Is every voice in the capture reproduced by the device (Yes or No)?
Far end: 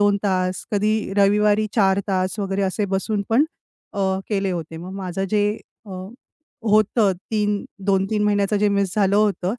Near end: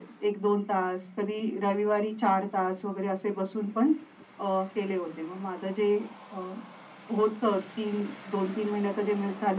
Yes